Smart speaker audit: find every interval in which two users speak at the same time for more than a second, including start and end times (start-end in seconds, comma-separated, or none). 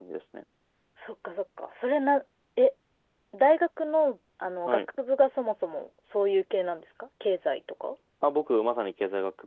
none